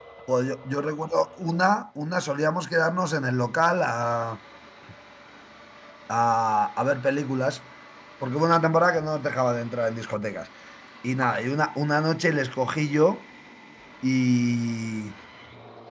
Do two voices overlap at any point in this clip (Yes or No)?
No